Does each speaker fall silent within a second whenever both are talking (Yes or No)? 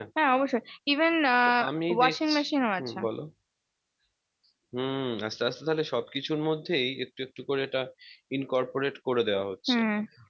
Yes